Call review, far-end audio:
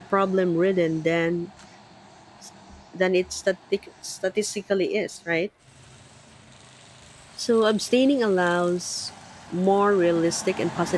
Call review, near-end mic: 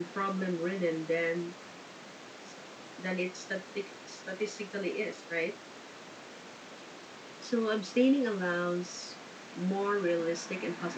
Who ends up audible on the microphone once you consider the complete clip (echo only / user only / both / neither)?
echo only